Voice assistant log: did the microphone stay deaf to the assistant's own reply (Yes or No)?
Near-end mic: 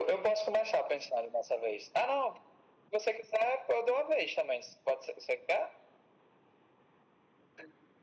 No